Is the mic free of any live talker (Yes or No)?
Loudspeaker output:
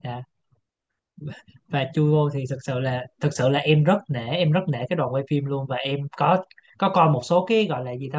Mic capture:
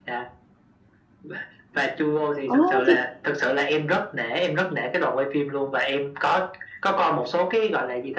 No